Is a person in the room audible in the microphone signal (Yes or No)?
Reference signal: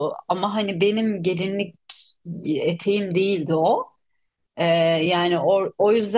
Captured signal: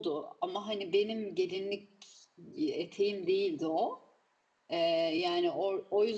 No